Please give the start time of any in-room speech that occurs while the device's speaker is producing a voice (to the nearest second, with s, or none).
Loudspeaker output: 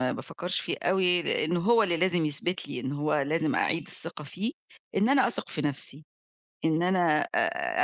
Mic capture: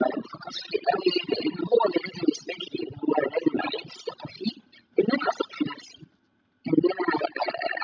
none